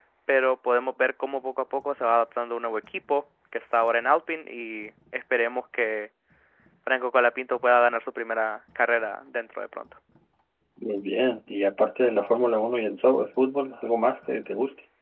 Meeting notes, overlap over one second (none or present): none